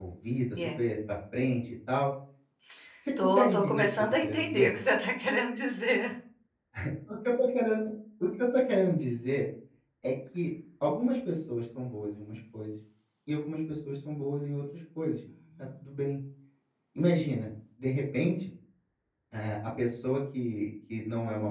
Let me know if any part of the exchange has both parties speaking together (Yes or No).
Yes